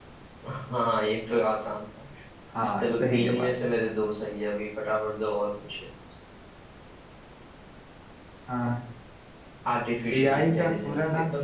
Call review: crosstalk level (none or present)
present